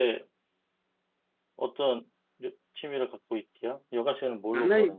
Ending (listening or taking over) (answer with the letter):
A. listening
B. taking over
B